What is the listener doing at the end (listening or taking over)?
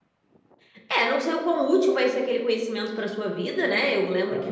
listening